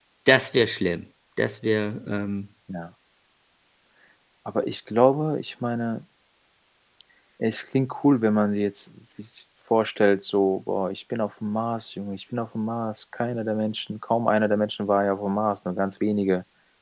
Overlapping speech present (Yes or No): No